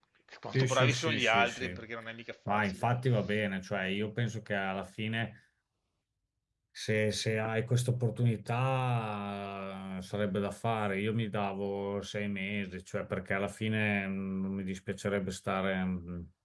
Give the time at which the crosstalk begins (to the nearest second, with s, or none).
1 s